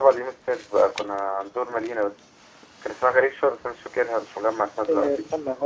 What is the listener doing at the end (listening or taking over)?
taking over